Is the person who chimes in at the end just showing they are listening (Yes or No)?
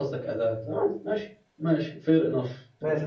No